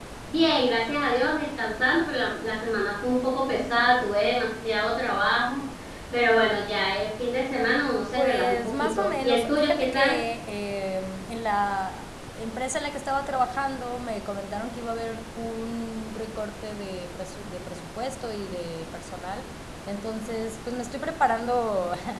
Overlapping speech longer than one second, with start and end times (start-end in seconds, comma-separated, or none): 8.1-10.2